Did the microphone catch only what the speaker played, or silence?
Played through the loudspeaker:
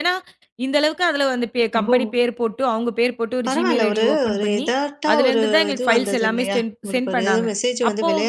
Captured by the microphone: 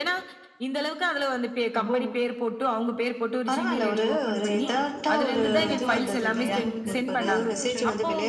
No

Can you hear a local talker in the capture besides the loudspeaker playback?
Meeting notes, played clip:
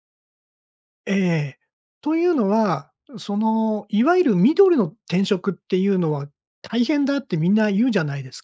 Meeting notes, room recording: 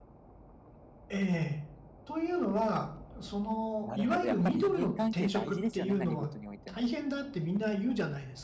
Yes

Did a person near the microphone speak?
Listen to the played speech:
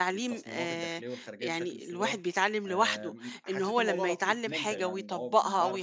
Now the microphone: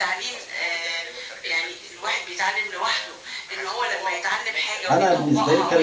Yes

